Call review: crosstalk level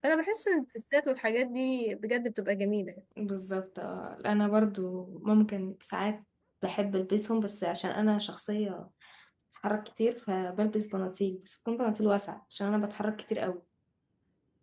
none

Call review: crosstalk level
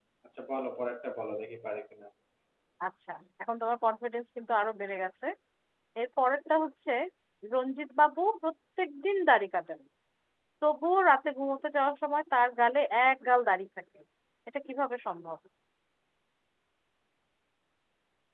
none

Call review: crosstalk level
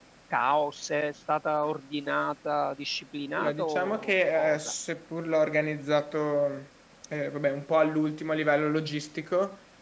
present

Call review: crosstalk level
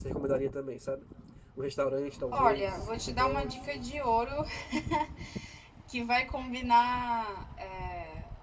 present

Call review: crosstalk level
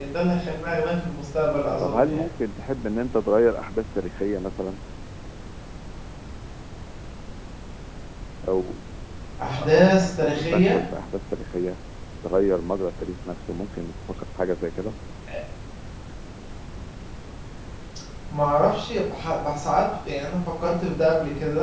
present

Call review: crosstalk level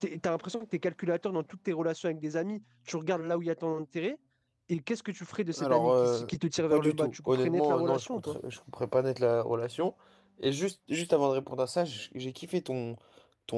present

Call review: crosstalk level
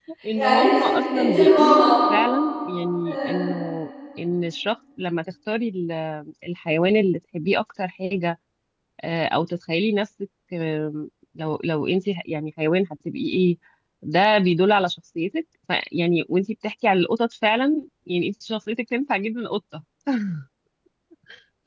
present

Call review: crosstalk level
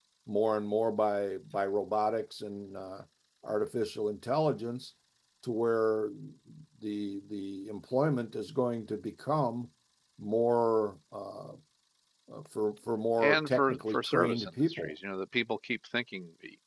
present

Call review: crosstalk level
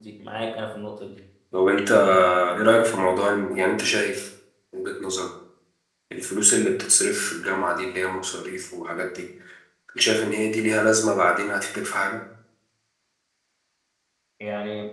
none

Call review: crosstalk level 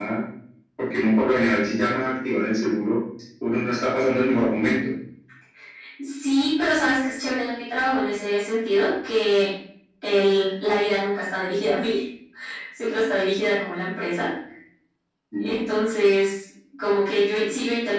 none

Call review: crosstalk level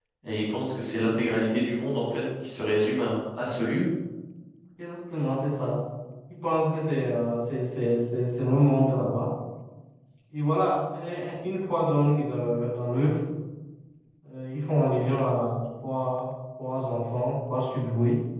none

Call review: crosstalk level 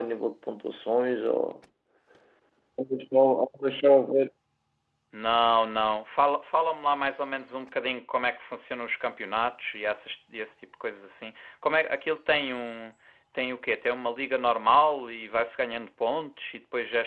none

